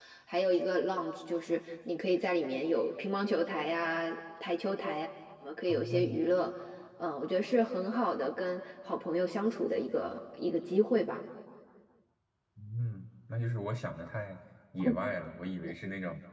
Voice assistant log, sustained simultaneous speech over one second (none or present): none